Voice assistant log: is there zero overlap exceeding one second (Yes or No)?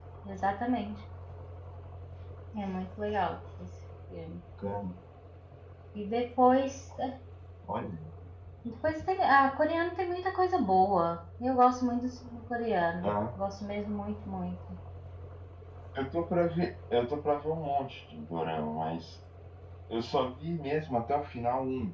Yes